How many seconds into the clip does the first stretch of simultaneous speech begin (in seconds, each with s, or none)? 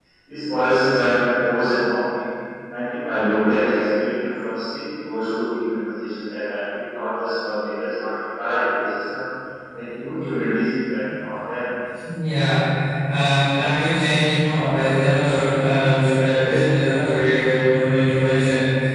none